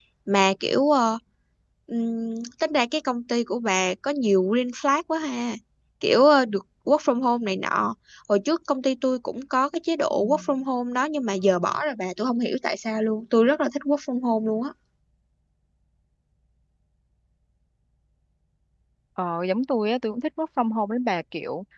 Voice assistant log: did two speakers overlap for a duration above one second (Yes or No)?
No